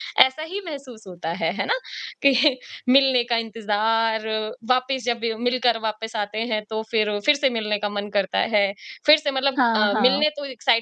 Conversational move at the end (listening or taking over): listening